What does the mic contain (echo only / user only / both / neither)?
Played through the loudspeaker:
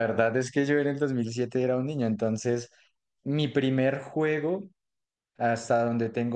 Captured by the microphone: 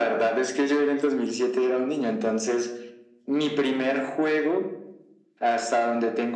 echo only